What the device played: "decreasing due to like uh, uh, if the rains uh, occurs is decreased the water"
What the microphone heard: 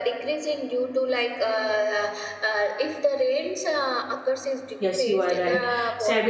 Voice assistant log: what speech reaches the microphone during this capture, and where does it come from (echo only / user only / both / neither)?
both